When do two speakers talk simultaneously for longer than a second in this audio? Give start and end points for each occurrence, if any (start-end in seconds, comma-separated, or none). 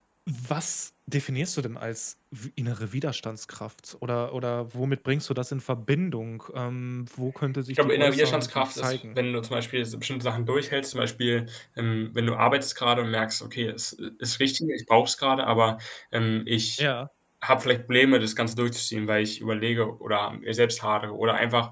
7.7-9.2